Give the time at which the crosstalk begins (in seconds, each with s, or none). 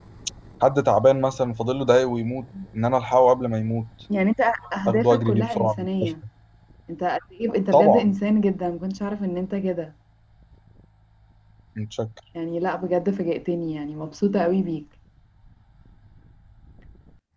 4.8 s